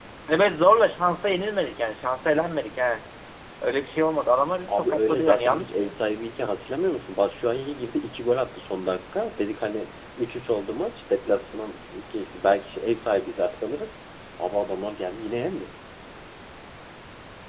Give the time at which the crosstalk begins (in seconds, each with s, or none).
4.7 s